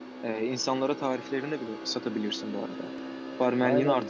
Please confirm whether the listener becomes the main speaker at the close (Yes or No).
Yes